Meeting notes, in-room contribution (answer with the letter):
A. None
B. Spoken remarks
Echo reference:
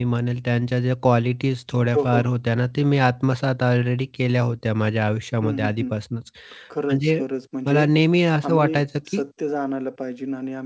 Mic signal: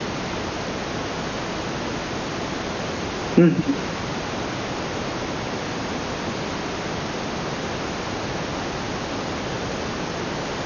B